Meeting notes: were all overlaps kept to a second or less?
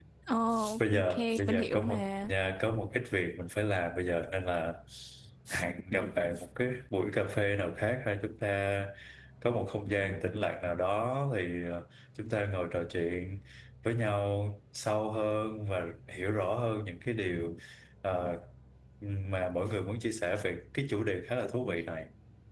No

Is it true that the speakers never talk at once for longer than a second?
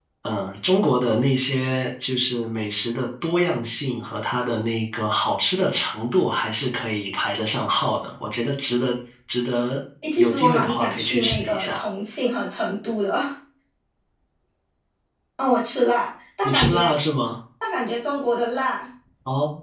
No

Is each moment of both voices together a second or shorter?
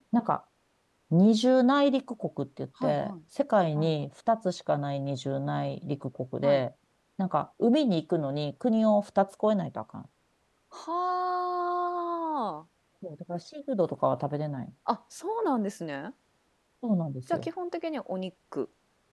Yes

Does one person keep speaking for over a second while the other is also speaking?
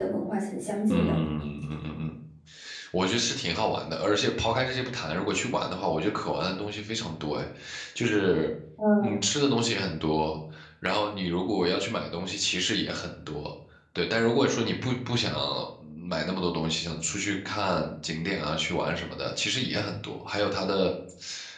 No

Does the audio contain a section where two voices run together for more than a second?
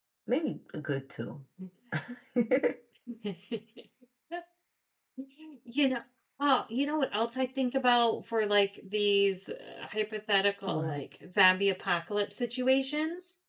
No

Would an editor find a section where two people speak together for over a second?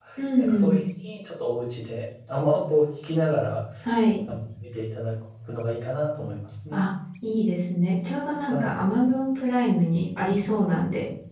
No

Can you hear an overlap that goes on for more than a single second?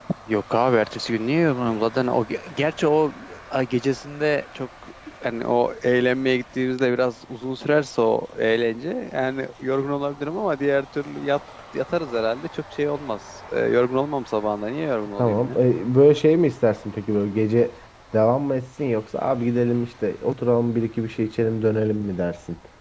No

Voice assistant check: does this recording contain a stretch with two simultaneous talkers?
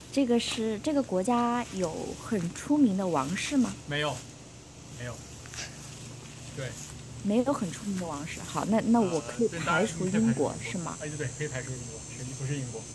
Yes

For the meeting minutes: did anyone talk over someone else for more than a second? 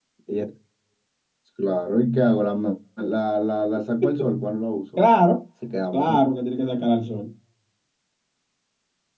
No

